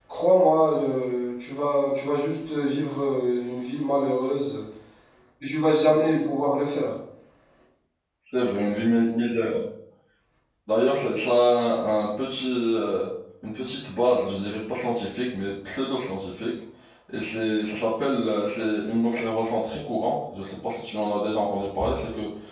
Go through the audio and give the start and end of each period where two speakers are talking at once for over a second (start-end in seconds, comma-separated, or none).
none